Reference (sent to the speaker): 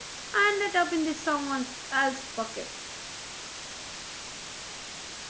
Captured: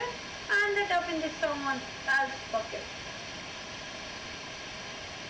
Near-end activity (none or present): none